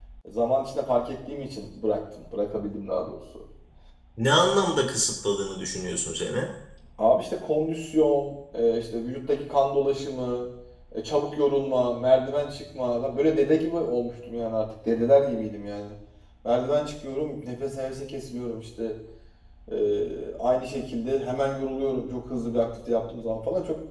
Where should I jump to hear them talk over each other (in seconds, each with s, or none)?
none